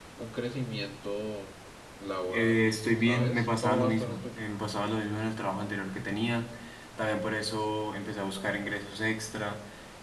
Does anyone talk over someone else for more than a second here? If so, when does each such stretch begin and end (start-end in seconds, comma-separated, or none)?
2.3-4.4